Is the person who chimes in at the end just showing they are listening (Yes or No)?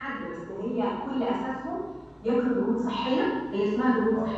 Yes